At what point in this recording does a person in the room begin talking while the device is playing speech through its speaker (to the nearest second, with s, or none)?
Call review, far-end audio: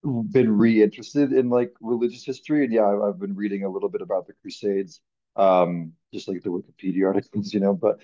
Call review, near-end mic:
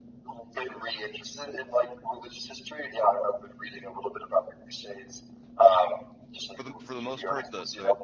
7 s